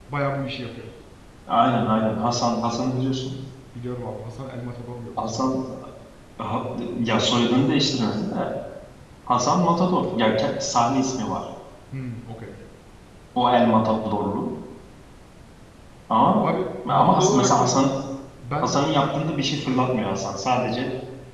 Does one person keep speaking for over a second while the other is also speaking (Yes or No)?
Yes